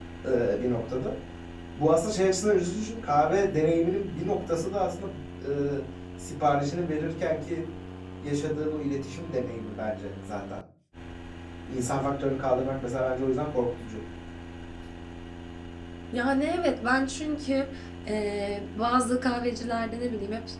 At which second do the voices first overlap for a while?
none

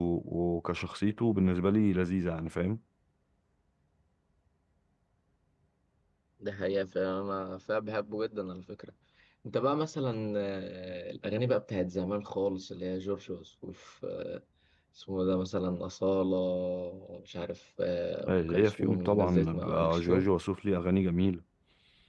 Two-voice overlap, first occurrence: 18.3 s

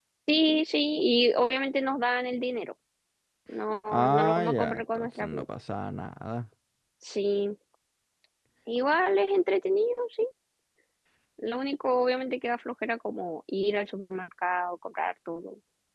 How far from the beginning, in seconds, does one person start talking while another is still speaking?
3.9 s

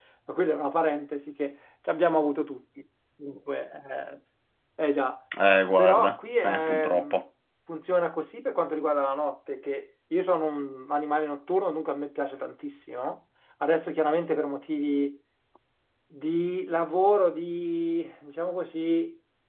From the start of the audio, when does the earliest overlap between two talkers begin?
5.8 s

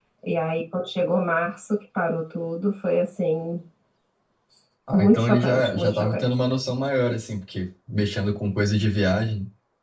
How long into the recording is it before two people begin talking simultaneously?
4.9 s

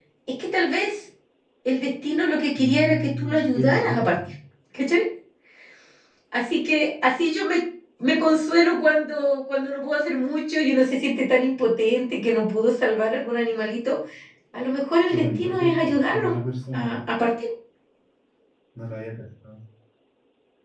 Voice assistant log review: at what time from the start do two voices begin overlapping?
2.6 s

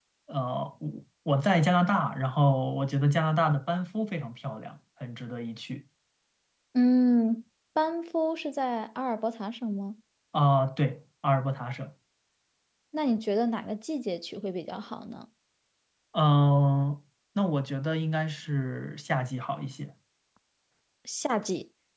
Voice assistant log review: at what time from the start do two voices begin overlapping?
none

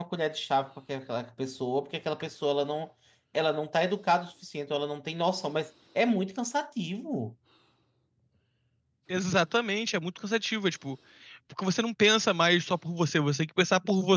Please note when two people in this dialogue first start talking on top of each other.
none

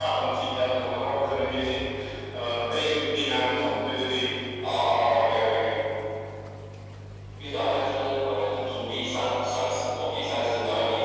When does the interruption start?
none

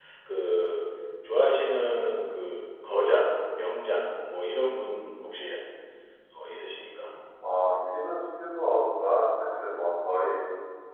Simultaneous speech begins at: none

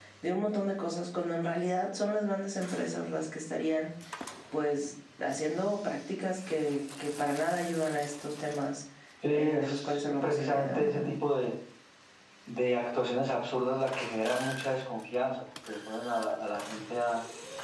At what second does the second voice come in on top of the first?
9.3 s

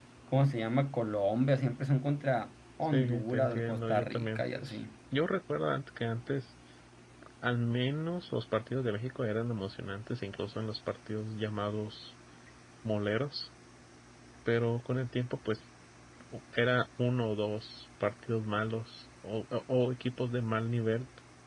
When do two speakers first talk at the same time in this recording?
2.8 s

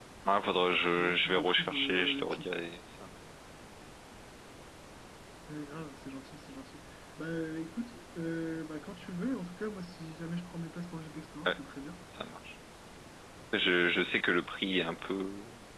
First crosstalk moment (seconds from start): 1.0 s

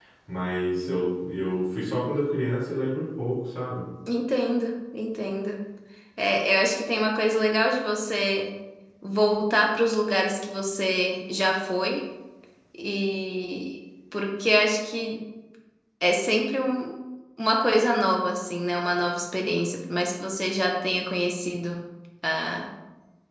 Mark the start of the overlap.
none

